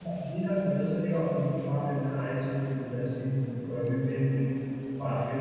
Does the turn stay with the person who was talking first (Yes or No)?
Yes